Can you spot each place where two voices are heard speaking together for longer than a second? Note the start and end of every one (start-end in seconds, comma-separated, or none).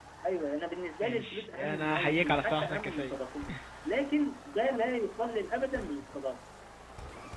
1.0-3.2